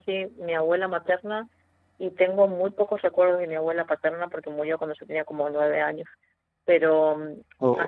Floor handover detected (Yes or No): No